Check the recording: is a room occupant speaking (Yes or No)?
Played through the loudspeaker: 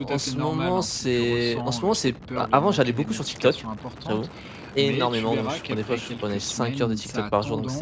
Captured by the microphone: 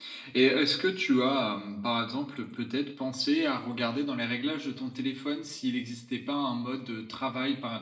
Yes